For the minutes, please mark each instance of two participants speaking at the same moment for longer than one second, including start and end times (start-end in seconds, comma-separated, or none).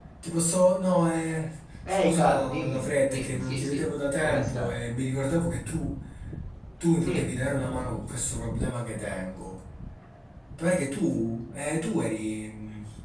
1.9-4.7